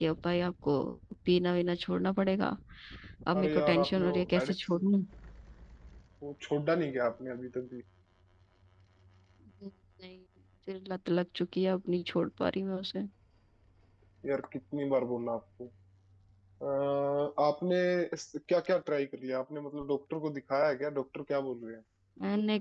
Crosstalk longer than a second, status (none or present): present